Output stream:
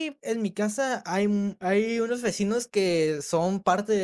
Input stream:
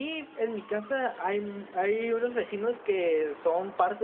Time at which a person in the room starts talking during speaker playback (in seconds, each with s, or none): none